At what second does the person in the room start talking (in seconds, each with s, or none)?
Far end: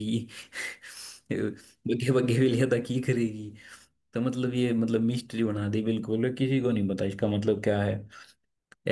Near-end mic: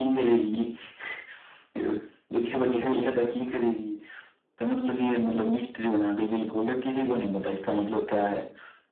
none